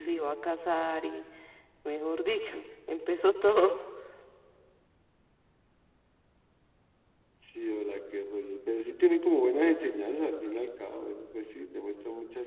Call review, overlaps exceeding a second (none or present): none